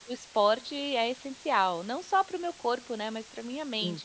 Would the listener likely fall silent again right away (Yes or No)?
No